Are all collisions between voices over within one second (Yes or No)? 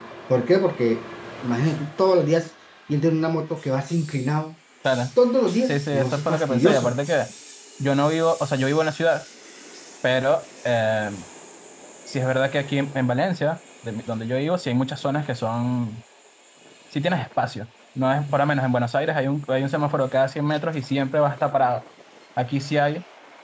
No